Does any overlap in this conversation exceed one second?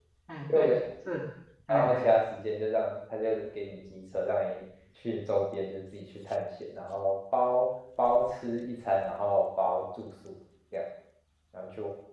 No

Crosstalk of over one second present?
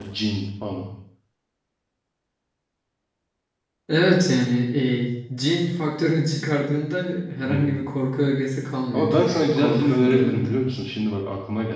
Yes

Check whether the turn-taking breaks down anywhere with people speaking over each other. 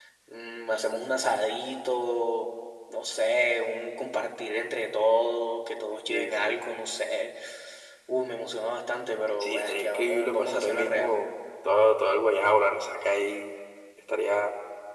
Yes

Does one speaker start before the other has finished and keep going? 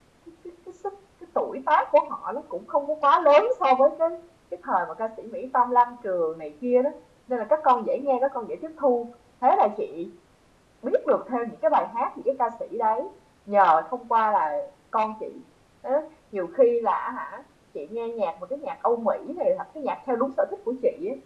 No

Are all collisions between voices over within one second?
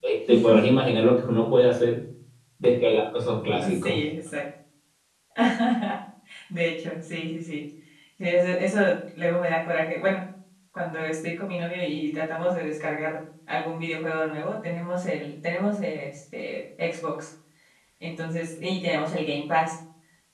Yes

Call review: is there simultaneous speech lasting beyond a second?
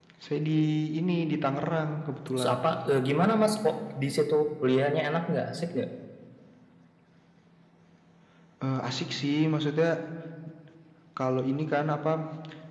No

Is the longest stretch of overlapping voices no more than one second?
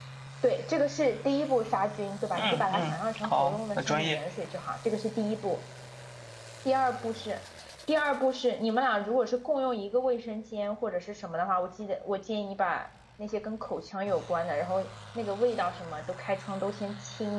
No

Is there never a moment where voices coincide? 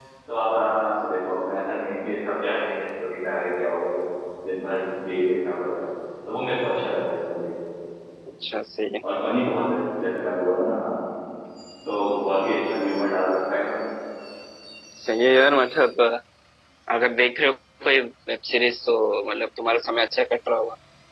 Yes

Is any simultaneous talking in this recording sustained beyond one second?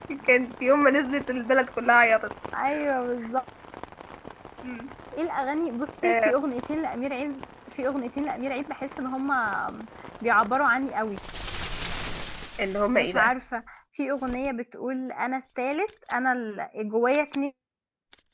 No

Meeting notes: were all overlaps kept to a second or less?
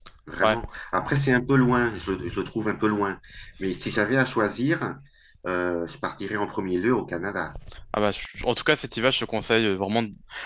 Yes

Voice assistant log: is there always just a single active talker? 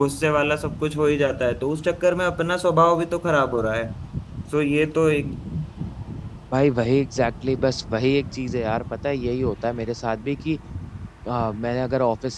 Yes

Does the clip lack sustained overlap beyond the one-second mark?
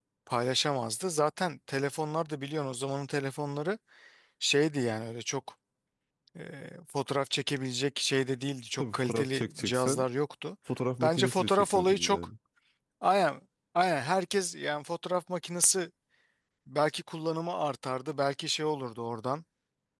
No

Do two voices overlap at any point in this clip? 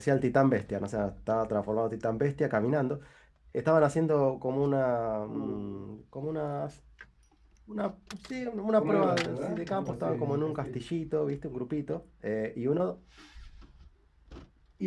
Yes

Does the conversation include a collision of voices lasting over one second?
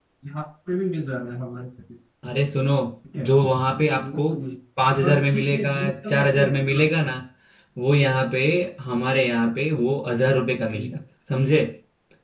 Yes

